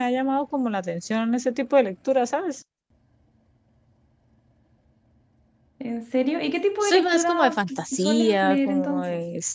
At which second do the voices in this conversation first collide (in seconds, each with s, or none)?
6.8 s